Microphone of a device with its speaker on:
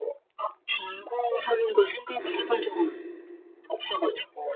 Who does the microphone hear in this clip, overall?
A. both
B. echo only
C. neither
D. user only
A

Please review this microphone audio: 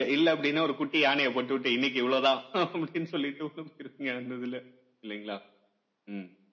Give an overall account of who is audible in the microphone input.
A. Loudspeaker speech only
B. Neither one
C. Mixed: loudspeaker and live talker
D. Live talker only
A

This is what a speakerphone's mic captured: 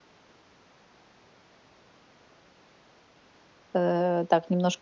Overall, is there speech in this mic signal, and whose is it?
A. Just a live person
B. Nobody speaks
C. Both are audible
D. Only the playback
A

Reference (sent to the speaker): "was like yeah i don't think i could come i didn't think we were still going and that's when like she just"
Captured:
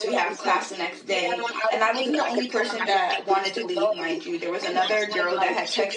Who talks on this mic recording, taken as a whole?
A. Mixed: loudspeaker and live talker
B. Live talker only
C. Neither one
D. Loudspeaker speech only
A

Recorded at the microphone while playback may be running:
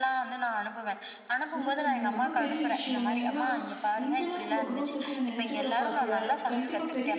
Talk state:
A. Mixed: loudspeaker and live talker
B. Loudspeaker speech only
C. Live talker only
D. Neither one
A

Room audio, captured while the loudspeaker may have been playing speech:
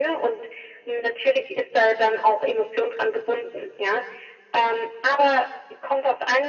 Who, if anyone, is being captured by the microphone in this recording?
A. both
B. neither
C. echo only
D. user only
C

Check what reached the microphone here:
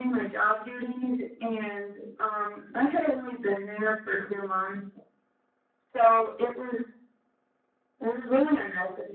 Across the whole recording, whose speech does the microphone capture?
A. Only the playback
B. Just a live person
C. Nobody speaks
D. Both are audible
A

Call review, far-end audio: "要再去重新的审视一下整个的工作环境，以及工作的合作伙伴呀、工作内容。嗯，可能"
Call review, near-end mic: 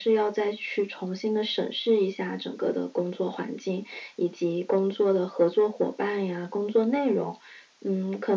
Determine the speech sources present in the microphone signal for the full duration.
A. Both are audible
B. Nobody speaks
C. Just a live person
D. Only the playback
D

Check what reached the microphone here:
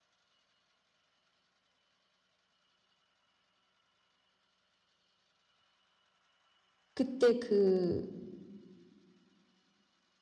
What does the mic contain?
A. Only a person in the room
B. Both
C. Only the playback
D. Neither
A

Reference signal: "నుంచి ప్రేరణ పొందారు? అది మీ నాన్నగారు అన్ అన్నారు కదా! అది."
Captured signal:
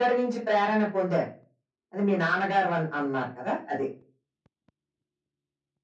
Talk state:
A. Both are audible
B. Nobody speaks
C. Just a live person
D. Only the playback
D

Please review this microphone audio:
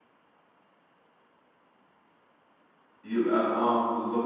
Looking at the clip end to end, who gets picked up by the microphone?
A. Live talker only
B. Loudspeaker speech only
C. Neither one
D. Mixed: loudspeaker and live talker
A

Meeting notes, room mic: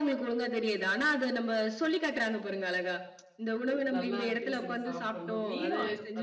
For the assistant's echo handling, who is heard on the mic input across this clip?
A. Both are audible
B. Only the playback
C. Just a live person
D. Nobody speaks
A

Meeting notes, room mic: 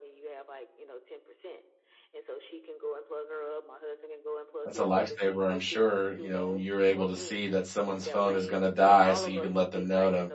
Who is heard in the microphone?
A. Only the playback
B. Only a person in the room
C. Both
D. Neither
C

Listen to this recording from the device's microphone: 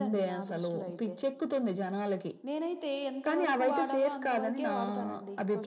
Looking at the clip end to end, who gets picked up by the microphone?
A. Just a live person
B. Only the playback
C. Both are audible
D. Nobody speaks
C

